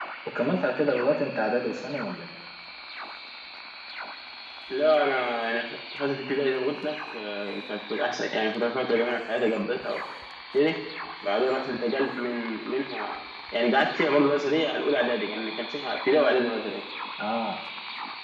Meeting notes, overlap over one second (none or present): none